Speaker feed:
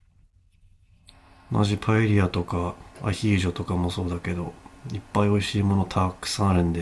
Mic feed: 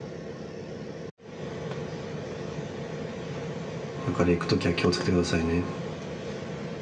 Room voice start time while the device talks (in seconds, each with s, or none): 4.1 s